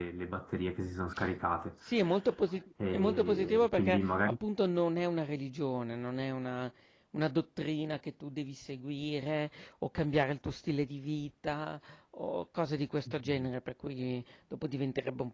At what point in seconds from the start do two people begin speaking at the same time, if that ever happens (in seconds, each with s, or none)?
2.9 s